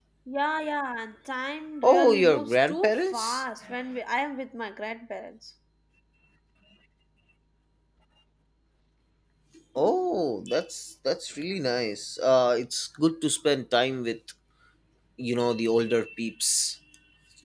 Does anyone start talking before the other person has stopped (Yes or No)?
Yes